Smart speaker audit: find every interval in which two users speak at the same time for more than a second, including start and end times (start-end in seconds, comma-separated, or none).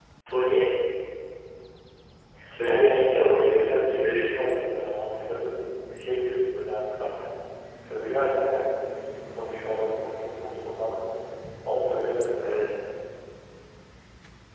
2.7-4.4